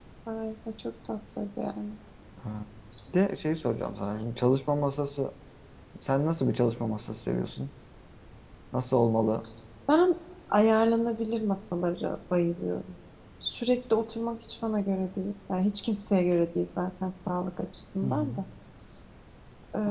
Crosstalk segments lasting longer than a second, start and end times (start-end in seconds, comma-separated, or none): none